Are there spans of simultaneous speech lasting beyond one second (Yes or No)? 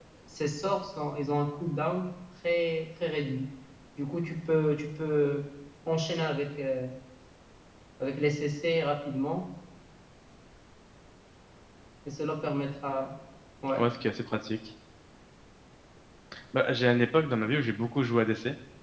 No